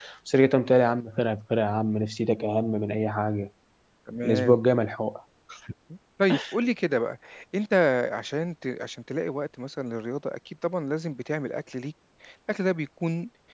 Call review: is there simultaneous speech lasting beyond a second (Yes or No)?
No